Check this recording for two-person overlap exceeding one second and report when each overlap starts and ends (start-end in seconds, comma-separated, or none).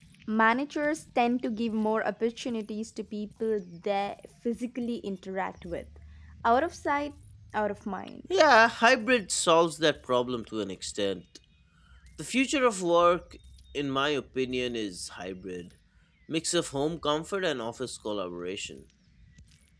none